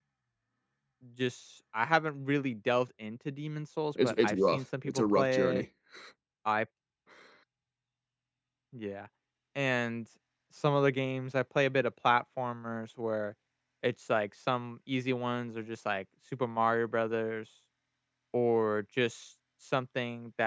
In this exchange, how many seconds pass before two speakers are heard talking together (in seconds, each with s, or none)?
4.0 s